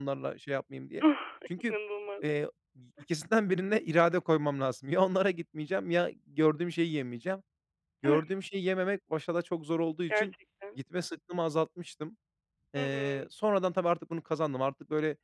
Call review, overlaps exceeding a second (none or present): none